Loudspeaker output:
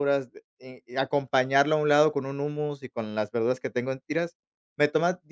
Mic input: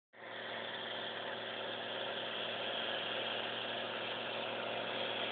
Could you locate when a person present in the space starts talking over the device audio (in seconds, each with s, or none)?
none